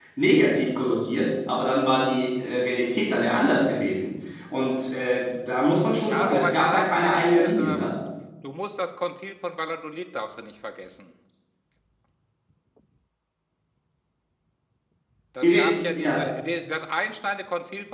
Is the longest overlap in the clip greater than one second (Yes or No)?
Yes